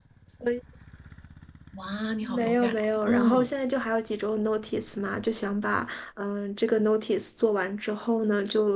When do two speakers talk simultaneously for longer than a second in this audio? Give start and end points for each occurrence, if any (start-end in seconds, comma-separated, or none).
2.2-3.5